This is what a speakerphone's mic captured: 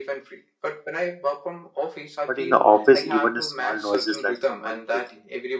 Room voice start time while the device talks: 2.3 s

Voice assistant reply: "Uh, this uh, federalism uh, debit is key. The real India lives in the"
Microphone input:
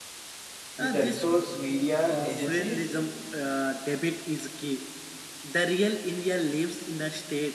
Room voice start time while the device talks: 0.8 s

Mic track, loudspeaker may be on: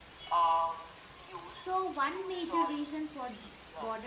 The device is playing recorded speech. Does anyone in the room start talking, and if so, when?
1.5 s

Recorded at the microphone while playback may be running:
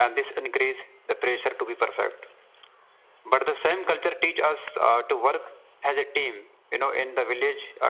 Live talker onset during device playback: none

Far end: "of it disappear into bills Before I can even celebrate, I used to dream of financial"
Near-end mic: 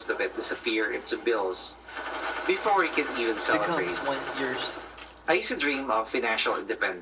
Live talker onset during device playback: 3.5 s

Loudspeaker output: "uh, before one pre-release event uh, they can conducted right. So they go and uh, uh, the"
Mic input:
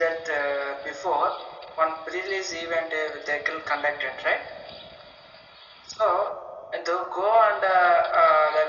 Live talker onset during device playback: none

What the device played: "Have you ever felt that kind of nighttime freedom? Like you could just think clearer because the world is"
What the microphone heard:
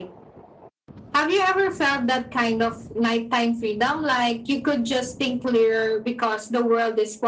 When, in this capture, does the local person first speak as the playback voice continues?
none

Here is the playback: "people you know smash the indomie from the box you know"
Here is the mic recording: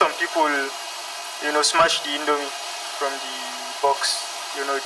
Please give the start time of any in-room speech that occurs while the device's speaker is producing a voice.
none

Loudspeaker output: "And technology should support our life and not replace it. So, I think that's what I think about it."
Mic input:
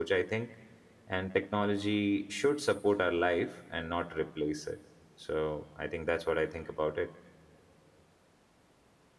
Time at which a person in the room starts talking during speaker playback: none

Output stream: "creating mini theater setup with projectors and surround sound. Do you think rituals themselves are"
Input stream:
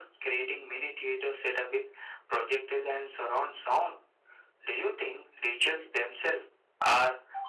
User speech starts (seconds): none

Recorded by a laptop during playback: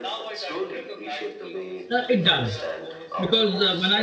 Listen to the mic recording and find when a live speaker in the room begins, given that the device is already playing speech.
1.9 s

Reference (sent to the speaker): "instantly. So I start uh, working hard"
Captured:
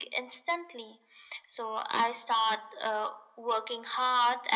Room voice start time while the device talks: none

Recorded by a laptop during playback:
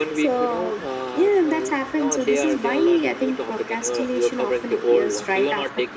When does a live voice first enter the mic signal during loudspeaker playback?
none

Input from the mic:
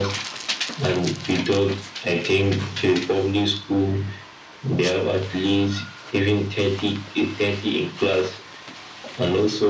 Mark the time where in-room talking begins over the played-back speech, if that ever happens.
none

